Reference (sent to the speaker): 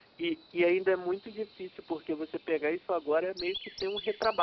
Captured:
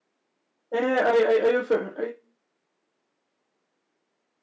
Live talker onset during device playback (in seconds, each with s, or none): 0.7 s